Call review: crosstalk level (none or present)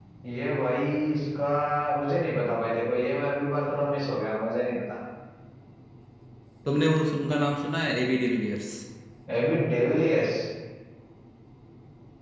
none